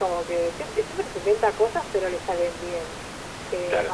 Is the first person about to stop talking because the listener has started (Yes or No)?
No